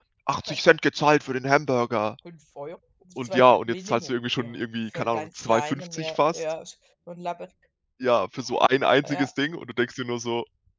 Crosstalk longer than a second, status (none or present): present